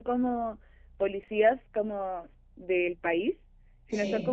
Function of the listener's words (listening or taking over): listening